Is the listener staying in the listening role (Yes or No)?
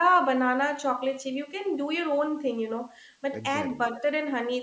Yes